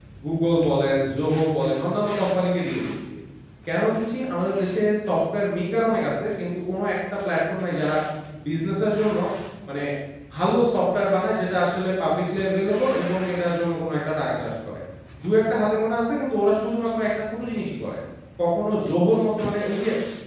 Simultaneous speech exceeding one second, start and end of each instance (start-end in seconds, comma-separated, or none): none